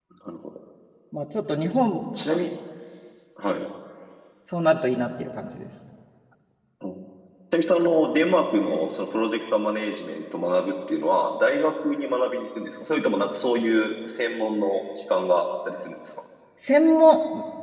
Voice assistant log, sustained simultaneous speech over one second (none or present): none